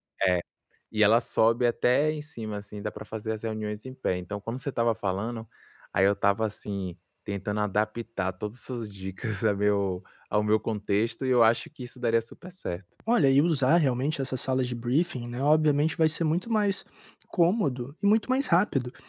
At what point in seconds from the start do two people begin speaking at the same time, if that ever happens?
none

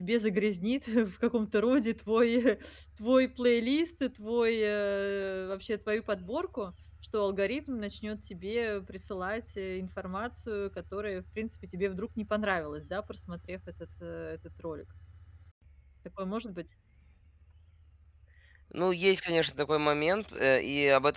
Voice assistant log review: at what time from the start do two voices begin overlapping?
none

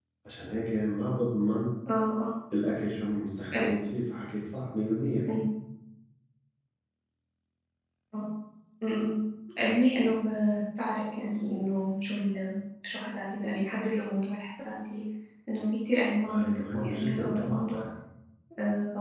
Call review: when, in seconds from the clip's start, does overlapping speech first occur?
16.3 s

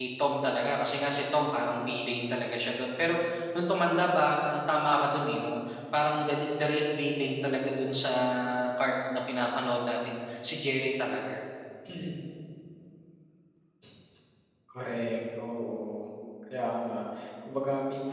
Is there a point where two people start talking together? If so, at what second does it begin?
none

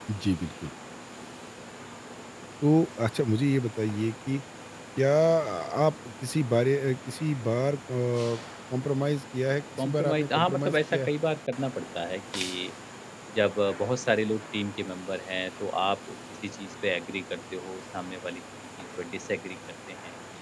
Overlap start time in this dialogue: 9.8 s

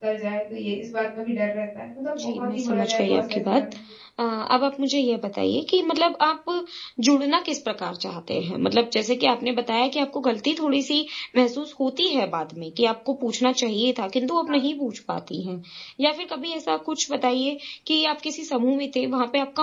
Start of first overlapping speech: 2.2 s

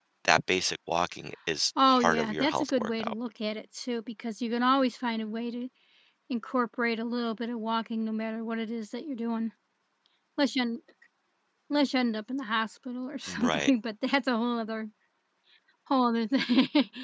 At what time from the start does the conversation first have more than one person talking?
1.9 s

